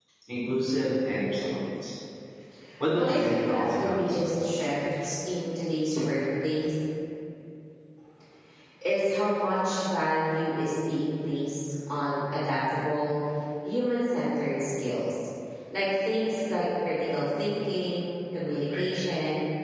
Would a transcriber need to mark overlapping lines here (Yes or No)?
Yes